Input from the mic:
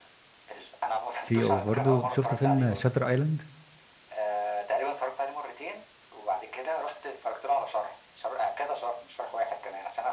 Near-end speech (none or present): present